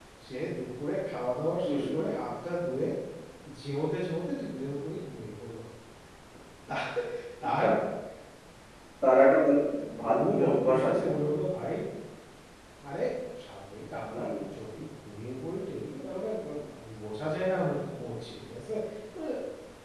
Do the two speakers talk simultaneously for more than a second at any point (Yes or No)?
Yes